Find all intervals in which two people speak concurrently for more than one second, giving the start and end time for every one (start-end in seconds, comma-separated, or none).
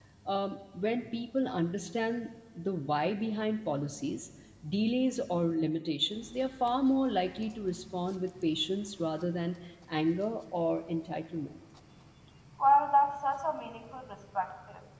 none